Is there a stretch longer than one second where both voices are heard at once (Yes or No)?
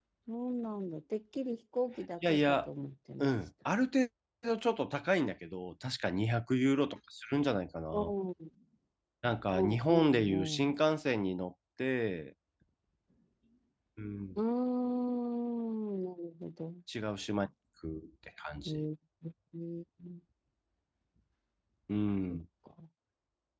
Yes